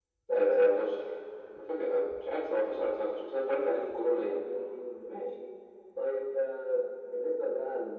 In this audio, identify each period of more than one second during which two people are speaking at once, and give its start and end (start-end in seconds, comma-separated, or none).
none